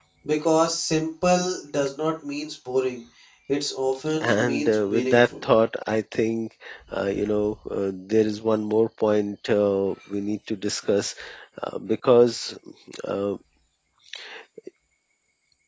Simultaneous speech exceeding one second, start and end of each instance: 4.2-5.4

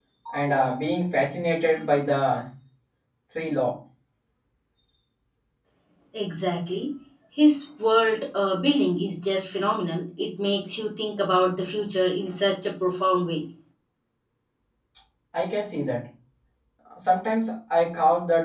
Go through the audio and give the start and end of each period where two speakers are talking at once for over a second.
none

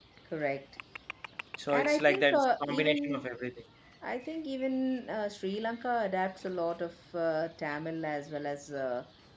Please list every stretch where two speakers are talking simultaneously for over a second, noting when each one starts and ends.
1.7-3.2

